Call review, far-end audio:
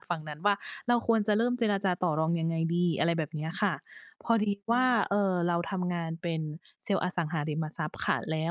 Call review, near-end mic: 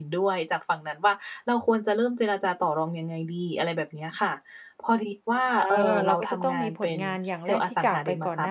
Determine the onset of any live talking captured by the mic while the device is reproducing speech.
5.6 s

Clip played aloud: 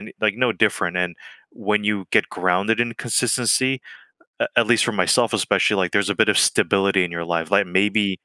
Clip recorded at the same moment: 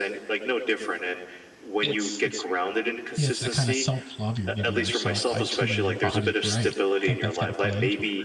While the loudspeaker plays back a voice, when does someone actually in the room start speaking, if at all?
1.8 s

